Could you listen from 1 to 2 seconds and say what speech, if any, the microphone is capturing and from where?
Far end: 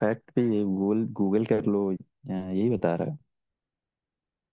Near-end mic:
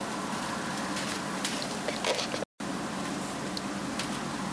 neither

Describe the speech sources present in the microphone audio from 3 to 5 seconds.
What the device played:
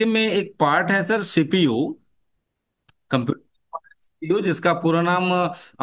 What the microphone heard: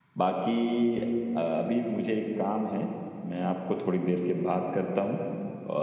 user only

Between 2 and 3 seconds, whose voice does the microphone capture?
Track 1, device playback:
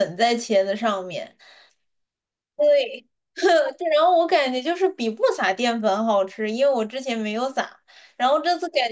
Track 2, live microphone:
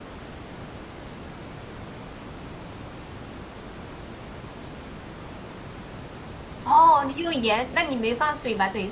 neither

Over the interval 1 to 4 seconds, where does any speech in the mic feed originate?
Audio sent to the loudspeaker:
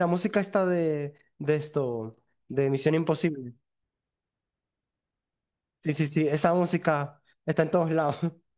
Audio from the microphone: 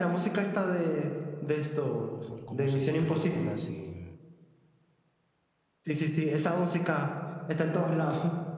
both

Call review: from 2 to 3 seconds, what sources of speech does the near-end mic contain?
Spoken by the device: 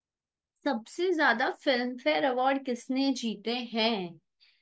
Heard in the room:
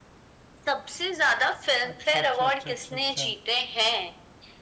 both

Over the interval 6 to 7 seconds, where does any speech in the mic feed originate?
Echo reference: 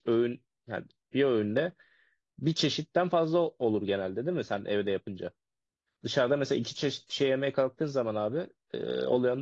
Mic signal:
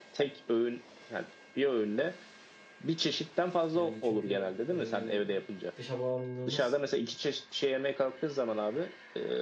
both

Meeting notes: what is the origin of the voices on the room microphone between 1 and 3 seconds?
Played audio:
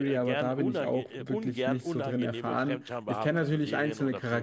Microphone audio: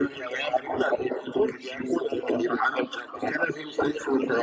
echo only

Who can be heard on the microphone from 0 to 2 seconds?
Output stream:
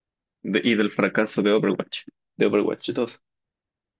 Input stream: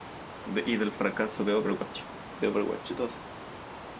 echo only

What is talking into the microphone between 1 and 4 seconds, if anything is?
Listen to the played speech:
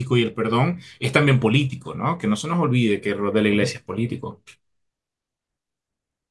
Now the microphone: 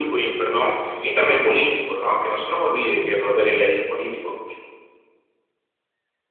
both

